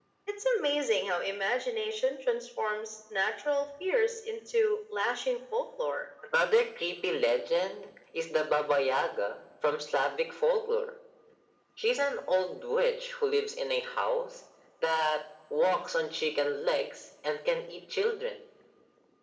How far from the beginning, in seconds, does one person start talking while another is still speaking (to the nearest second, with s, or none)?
none